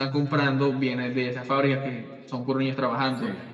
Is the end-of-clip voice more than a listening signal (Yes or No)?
No